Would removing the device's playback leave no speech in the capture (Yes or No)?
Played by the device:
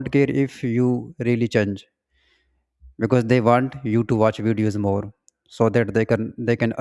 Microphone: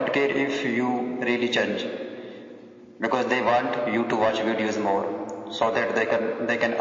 Yes